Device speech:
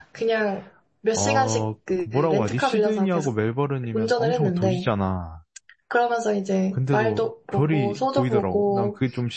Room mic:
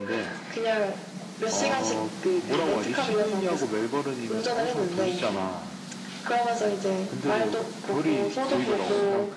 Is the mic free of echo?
No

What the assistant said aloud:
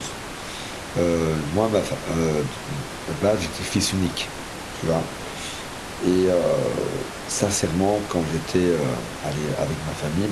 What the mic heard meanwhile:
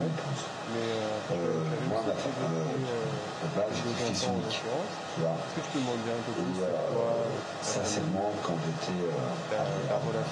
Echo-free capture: No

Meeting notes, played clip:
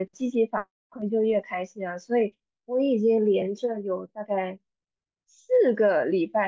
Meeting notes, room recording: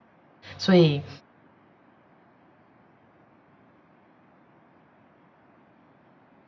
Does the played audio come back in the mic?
No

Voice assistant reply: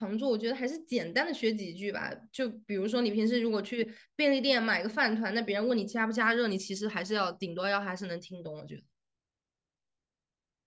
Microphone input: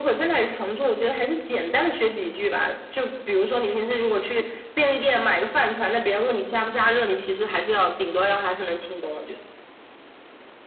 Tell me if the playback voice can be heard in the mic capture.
Yes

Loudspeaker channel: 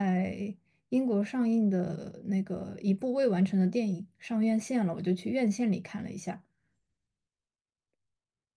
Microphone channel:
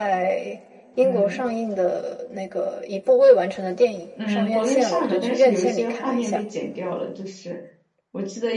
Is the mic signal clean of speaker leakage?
No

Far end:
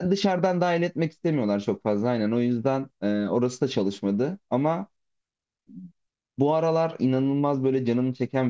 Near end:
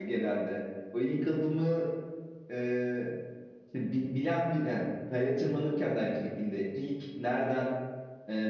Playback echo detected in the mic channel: No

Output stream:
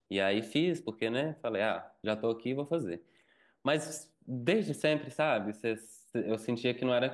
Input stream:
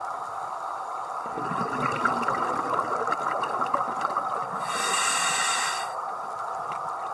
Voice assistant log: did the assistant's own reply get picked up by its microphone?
No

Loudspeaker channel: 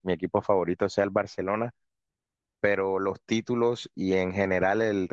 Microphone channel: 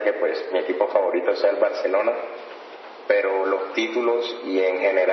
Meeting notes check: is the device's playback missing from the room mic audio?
No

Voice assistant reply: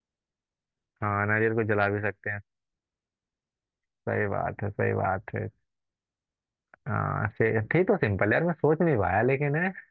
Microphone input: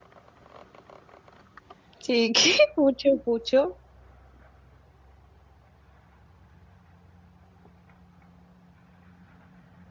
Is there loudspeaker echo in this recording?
No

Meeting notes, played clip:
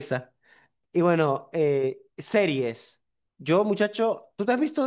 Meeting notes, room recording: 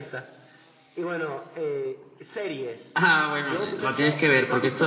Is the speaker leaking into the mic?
Yes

